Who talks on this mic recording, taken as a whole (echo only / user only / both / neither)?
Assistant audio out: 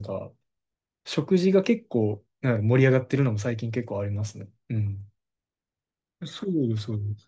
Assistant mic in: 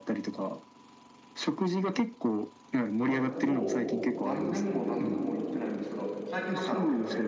both